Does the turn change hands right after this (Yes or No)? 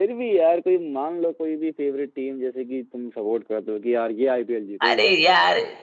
Yes